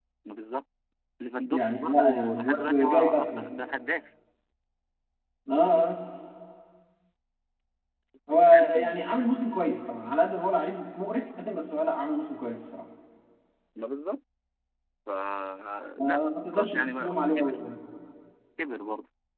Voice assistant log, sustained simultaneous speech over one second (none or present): present